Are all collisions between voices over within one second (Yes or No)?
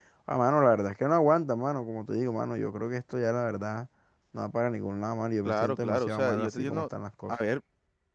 No